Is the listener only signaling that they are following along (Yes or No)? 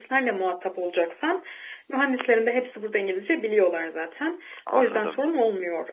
Yes